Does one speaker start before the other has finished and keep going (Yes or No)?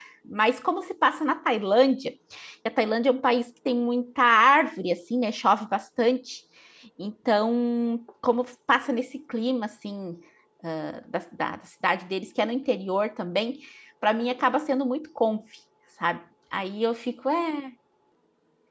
No